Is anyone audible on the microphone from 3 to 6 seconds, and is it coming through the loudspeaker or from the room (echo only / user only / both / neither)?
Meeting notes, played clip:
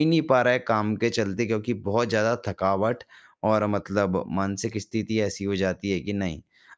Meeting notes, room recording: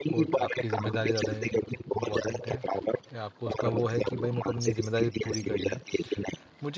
both